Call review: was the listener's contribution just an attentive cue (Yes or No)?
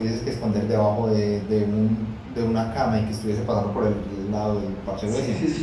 No